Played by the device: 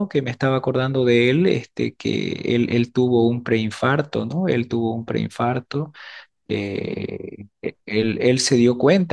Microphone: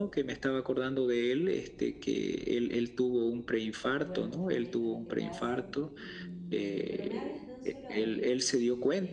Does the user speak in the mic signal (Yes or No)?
Yes